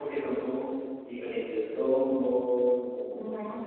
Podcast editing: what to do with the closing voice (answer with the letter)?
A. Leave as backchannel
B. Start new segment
B